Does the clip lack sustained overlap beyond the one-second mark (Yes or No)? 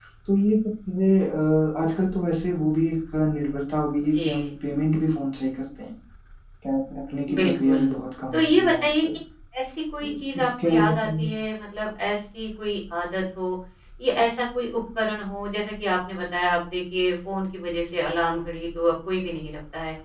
No